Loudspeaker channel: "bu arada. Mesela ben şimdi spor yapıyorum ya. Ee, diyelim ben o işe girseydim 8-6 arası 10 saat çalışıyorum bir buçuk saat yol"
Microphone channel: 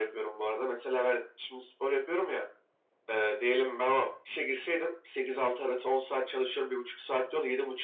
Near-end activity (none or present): none